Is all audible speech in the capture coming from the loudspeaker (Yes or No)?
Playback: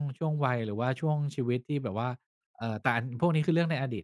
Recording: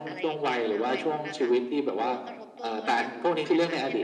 No